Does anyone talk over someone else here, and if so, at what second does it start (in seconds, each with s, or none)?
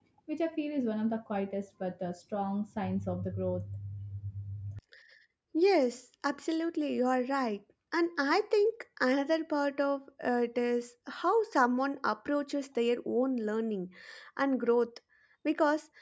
none